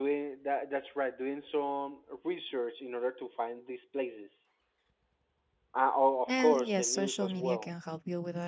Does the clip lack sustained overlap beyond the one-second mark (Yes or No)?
No